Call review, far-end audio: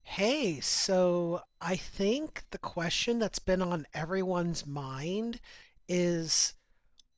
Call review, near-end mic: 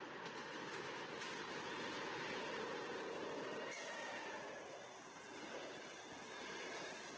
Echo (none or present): none